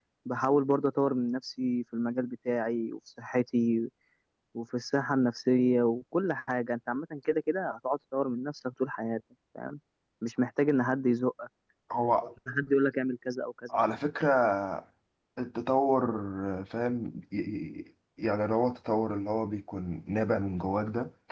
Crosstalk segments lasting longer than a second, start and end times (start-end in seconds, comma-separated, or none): none